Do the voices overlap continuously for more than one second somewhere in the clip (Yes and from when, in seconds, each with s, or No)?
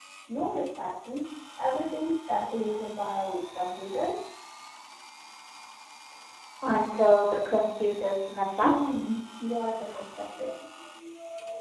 No